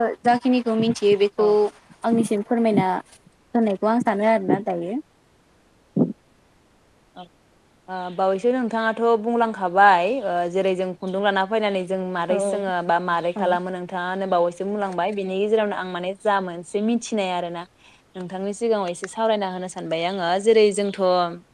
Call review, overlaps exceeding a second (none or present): none